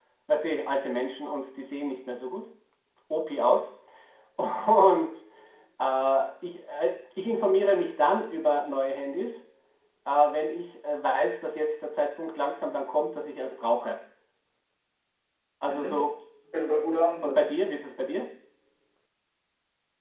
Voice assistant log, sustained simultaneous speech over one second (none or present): none